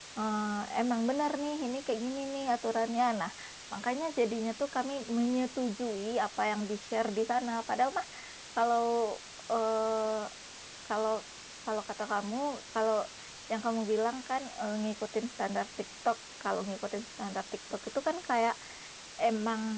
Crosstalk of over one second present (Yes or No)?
No